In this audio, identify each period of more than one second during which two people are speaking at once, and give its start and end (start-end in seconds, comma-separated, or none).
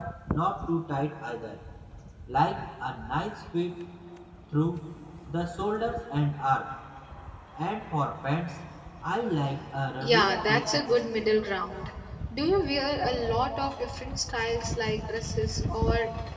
10.0-11.3